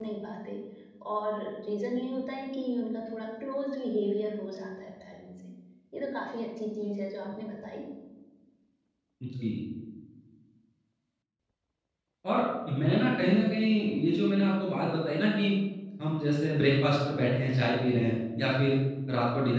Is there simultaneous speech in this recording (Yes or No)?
No